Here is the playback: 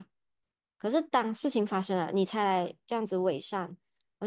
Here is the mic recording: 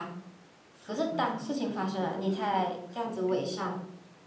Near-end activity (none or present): present